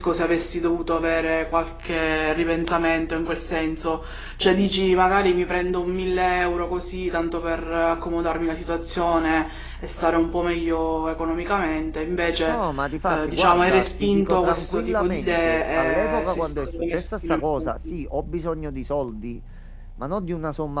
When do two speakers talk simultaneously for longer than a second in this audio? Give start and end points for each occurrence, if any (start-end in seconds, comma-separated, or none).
13.1-17.9